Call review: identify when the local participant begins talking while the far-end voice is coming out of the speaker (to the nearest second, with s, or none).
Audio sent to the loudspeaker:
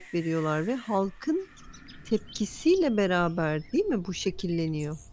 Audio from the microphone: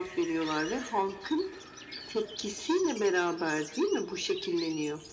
none